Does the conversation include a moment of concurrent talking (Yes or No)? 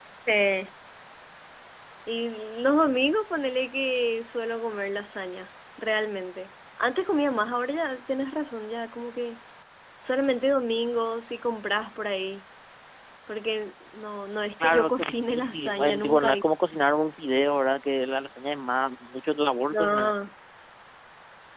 Yes